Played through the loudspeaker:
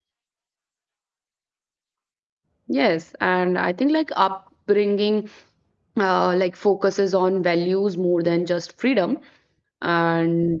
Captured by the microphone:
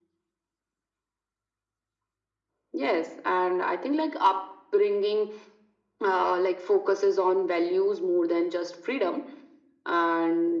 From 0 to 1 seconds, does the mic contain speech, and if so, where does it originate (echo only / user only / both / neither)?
neither